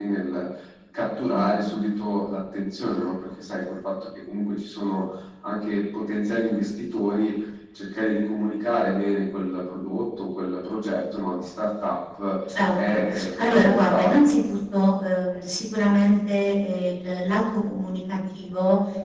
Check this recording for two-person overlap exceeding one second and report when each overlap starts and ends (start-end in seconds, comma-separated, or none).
12.7-14.2